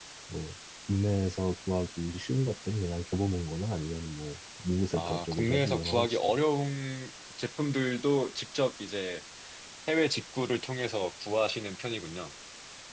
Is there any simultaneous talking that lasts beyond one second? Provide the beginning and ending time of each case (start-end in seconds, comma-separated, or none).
4.9-6.3